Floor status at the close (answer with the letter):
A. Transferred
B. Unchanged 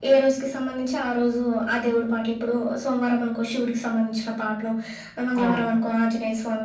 B